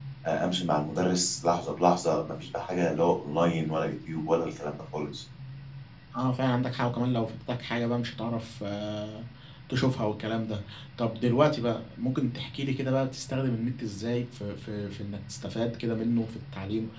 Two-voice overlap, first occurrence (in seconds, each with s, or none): none